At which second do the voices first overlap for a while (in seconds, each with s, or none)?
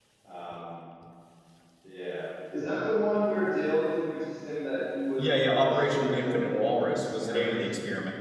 5.2 s